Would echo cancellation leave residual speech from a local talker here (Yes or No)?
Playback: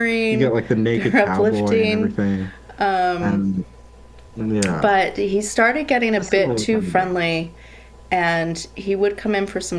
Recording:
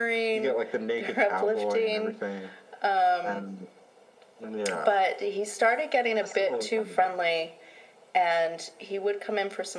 No